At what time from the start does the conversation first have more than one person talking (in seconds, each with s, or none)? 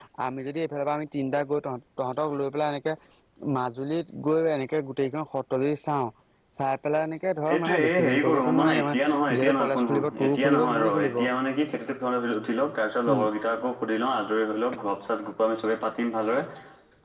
7.5 s